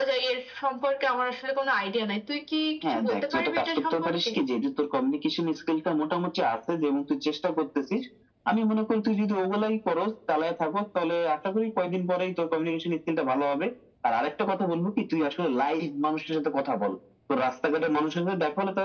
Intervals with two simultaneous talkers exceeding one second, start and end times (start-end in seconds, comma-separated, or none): 2.8-4.3